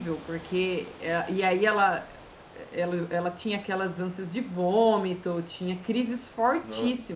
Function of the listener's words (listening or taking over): listening